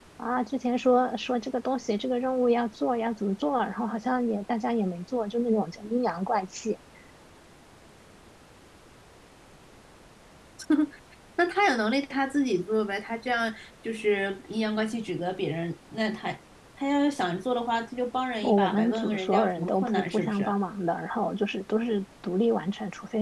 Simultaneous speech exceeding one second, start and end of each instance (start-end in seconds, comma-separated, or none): 18.4-20.5